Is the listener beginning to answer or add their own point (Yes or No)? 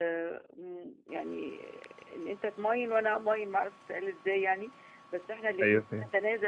No